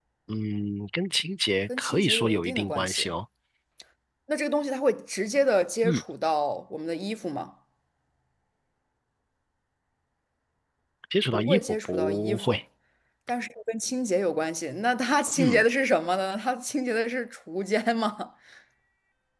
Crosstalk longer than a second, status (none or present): present